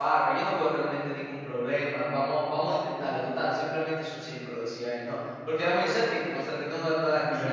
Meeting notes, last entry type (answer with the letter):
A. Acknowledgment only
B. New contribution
B